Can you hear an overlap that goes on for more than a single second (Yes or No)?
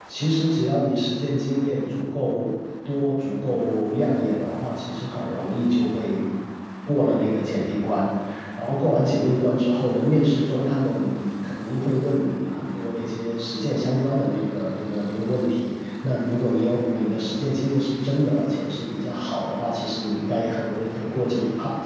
No